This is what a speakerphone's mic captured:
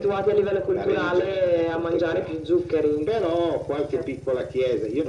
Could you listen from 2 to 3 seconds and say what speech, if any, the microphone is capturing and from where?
echo only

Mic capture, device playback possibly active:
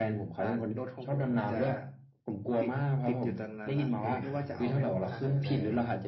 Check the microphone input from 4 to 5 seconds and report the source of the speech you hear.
both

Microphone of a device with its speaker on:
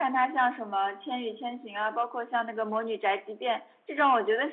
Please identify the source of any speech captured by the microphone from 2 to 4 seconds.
echo only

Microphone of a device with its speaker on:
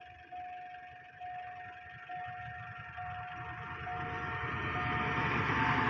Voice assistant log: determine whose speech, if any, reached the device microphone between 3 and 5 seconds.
neither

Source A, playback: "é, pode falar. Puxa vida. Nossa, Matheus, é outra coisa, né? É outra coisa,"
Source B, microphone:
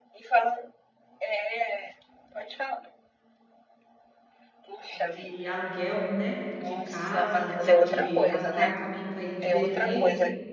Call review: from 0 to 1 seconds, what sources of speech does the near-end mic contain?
echo only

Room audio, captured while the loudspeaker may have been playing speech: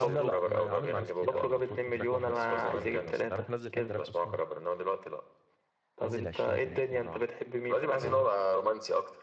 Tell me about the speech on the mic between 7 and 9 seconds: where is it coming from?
both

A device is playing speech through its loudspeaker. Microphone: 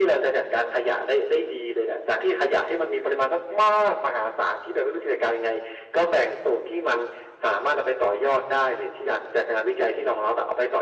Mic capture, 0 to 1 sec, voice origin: echo only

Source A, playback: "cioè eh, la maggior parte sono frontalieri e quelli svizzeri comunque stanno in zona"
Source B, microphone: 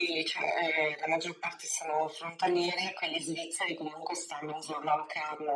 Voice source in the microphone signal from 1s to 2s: echo only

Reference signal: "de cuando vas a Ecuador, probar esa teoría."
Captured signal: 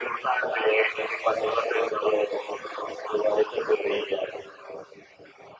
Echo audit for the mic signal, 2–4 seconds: echo only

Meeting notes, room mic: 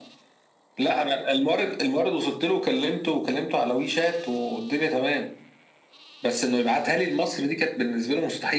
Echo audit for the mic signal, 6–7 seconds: echo only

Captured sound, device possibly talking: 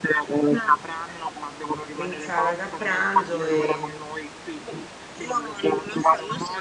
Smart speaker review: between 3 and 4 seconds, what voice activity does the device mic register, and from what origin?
both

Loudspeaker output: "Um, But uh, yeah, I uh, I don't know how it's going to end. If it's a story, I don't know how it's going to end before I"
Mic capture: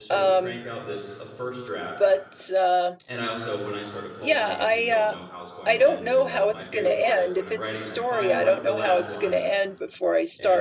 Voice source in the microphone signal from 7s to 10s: both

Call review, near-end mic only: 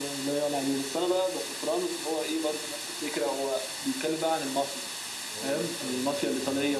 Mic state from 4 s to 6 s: both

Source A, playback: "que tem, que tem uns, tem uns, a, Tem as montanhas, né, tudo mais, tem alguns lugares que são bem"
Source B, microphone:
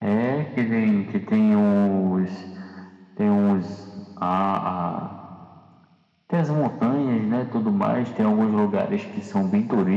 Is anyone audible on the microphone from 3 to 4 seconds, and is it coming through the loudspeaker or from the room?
echo only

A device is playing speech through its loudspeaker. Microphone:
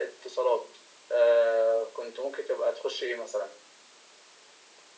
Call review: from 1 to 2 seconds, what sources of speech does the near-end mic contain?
echo only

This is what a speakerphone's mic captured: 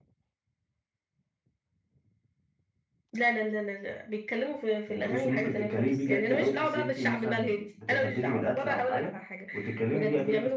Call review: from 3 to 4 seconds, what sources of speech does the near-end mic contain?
echo only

